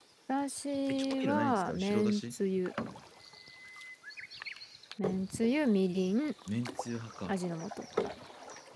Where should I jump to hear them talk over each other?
0.9 s

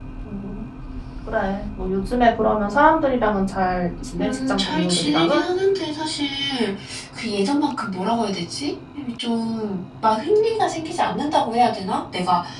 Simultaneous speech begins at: 4.2 s

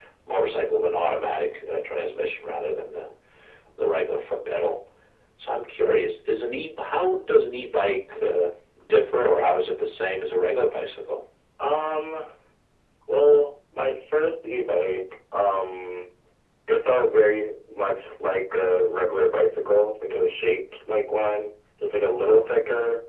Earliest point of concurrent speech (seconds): none

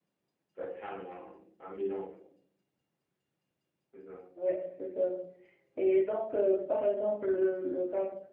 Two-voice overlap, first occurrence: none

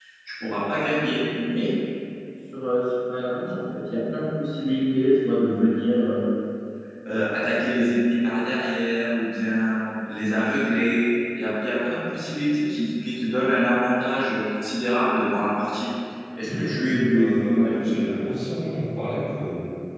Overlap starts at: 16.4 s

